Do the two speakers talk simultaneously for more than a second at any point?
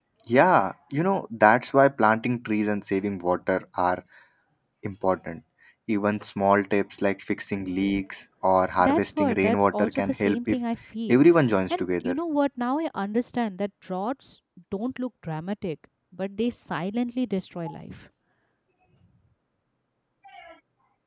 Yes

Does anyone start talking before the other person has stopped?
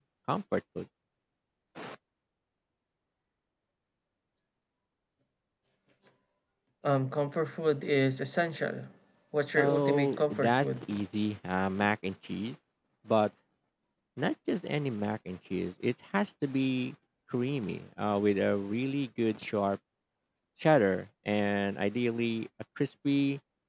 Yes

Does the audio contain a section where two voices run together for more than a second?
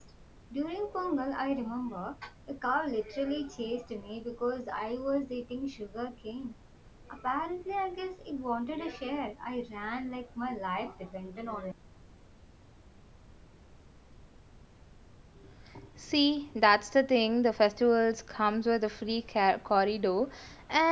No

